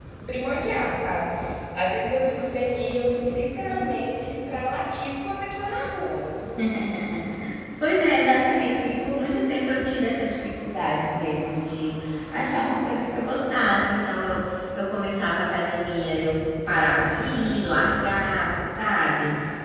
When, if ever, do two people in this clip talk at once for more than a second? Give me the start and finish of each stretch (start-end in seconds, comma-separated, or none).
none